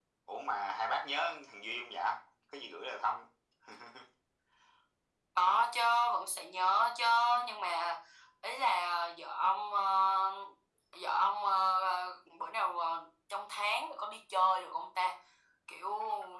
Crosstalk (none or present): none